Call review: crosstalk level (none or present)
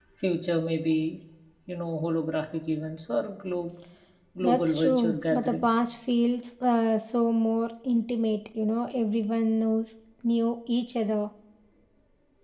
present